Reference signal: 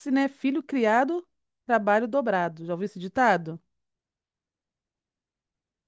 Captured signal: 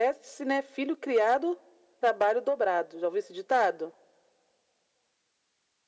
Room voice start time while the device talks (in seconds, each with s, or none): none